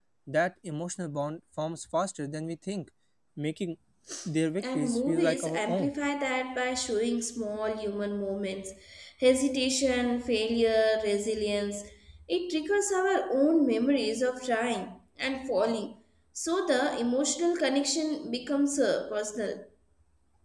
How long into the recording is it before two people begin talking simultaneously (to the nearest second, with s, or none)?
5 s